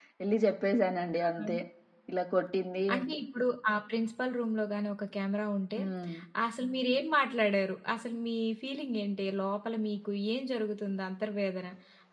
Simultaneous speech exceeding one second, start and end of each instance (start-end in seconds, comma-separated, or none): none